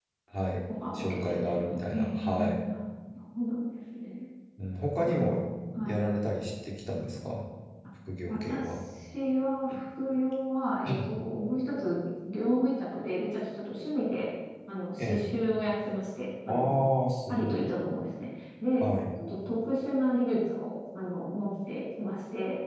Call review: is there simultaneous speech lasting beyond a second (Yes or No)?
Yes